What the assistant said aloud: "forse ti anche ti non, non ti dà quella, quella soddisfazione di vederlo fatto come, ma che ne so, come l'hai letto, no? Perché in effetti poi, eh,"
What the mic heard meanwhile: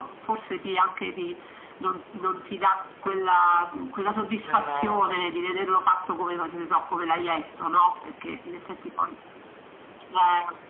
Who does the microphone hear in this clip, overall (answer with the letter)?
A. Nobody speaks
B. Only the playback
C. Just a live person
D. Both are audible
D